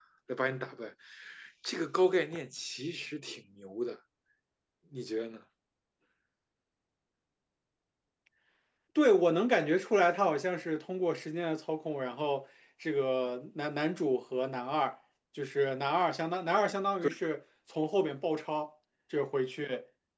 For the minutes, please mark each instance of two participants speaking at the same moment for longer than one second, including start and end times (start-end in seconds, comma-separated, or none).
none